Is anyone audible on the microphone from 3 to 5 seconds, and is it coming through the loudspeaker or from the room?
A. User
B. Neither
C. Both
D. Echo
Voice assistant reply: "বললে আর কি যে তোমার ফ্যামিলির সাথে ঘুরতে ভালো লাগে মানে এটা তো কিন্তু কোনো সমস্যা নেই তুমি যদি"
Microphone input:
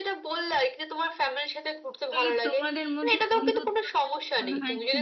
C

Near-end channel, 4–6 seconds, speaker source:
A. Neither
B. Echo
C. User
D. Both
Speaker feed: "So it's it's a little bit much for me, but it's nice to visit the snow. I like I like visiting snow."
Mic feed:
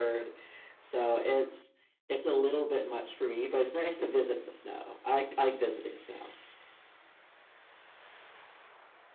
B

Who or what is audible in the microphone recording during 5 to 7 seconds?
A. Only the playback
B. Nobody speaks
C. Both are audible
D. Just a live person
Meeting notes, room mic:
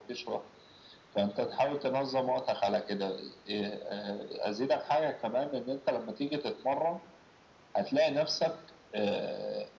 A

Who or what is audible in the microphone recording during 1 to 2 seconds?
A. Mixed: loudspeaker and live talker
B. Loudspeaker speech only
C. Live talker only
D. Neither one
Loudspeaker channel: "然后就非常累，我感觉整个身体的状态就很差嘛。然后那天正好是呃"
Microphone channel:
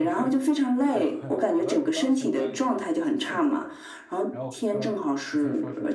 A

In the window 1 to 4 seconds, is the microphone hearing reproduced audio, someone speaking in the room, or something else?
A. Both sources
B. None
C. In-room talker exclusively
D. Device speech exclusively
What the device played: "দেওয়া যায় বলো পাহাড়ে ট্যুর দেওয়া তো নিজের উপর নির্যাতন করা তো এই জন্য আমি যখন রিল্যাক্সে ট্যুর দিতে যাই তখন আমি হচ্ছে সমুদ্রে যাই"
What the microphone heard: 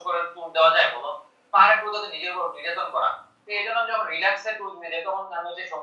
D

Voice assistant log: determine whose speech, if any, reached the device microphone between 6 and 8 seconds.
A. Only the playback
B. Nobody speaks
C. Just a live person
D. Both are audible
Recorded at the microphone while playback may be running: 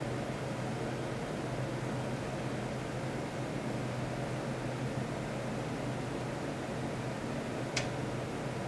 B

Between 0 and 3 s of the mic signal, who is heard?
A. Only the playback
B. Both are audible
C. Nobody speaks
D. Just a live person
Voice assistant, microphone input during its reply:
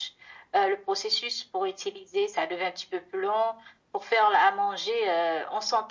A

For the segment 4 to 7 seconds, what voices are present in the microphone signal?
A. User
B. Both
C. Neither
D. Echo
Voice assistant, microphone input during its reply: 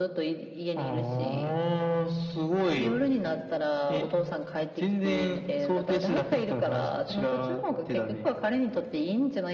D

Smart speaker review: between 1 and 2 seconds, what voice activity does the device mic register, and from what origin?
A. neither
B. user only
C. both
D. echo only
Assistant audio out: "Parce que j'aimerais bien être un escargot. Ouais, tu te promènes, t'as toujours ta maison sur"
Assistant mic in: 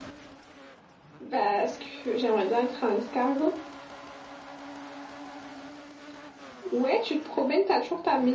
D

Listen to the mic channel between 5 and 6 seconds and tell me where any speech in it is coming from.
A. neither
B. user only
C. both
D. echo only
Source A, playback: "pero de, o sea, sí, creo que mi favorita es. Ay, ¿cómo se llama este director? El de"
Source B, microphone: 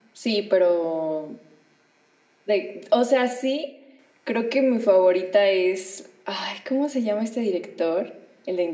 D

